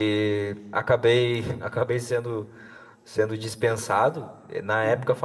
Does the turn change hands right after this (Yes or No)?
No